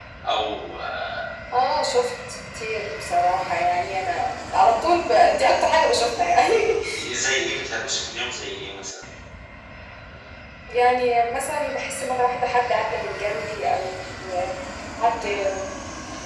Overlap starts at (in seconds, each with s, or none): none